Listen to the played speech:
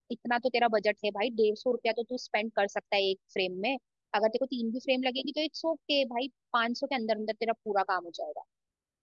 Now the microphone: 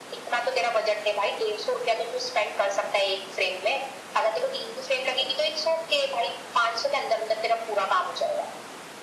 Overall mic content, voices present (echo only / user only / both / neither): echo only